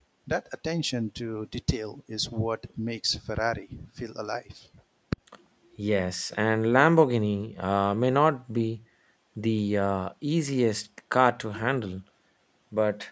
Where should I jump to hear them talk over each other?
none

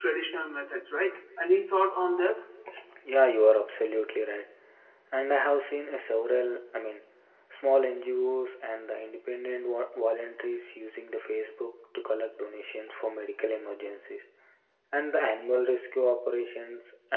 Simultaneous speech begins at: none

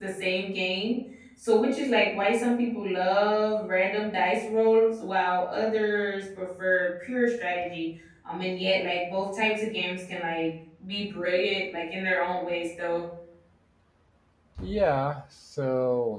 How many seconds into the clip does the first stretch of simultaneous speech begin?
none

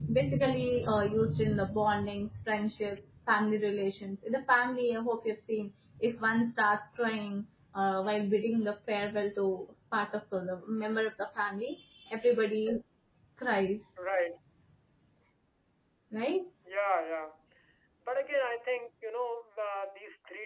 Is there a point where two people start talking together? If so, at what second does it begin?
none

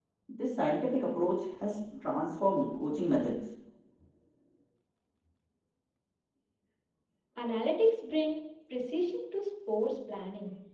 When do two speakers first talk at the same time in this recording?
none

